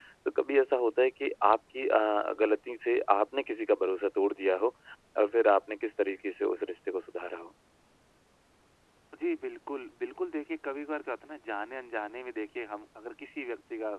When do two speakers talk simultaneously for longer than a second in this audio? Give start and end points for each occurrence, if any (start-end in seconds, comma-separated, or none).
none